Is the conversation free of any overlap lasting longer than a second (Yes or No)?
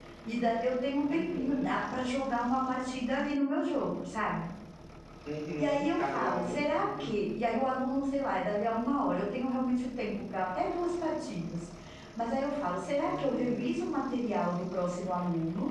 No